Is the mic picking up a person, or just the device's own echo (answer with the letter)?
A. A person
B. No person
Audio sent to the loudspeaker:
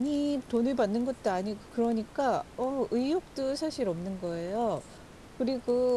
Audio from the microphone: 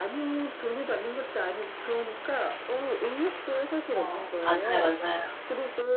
A